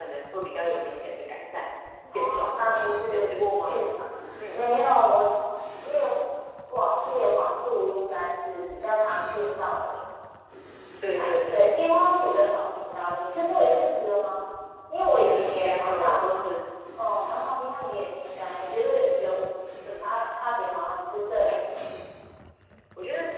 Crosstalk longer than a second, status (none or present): present